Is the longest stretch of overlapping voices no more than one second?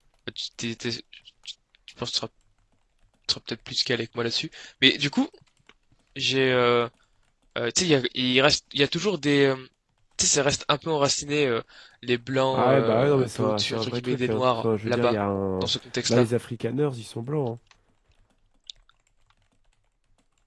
No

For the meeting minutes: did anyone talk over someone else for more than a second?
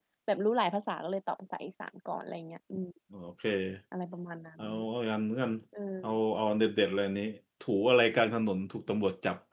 No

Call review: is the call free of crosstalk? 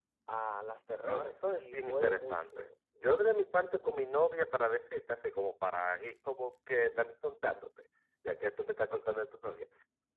No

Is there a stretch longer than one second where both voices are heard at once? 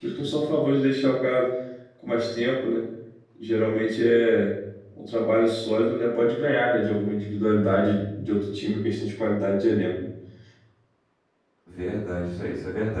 No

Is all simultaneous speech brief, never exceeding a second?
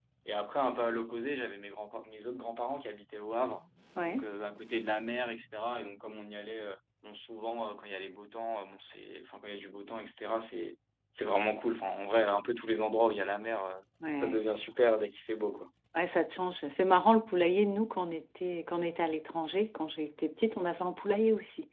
Yes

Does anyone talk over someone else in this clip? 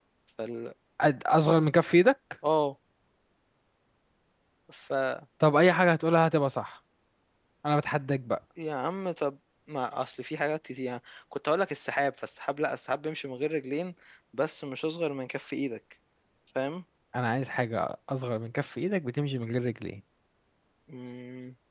No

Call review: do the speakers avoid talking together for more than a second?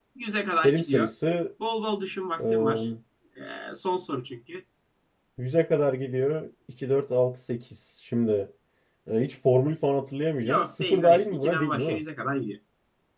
No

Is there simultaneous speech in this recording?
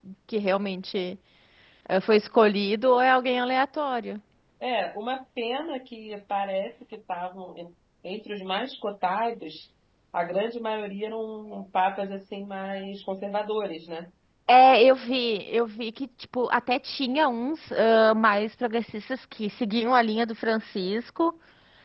No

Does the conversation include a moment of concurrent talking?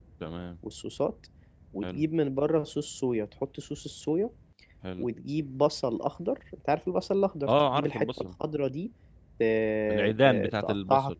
Yes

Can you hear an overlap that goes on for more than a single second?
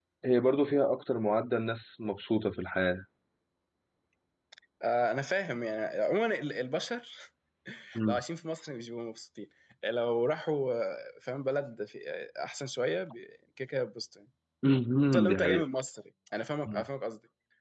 No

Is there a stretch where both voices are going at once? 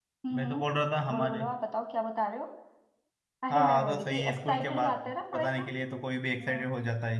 Yes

